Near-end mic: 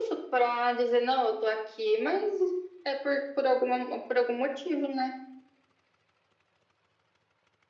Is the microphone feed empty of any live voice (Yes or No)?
Yes